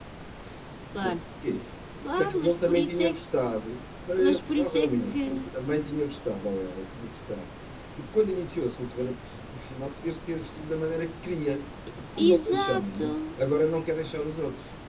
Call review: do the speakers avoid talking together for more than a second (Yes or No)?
No